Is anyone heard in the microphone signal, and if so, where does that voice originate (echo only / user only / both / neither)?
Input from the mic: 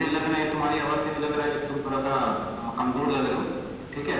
echo only